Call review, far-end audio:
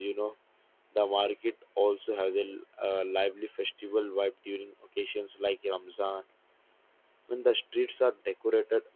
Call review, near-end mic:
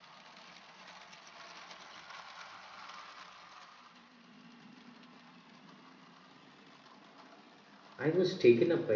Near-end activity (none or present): present